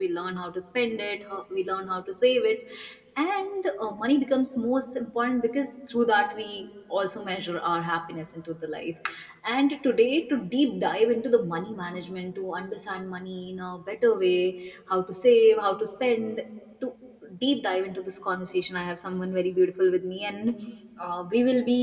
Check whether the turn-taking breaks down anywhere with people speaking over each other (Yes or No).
No